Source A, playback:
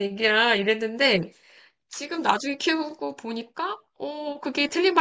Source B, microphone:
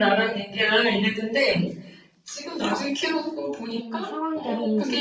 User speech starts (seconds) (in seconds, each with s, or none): 3.8 s